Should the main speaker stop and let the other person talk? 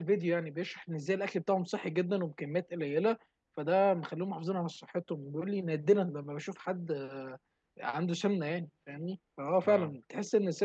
No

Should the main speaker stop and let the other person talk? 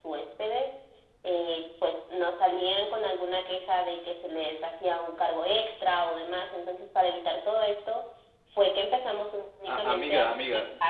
Yes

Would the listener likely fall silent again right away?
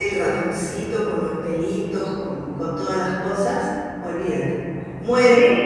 No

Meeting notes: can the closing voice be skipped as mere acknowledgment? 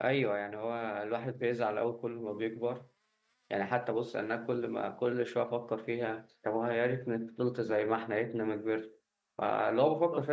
Yes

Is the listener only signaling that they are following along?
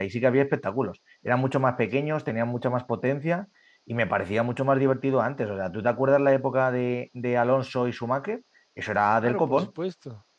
No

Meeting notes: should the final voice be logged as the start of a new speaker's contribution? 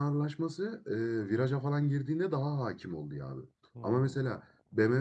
No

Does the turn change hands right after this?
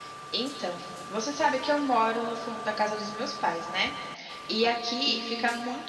No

